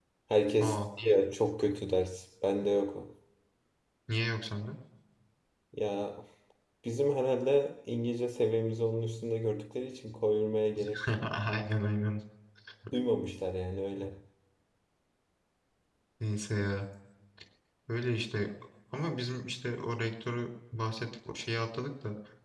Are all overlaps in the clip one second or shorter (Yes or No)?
Yes